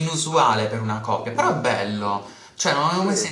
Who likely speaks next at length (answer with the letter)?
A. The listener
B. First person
B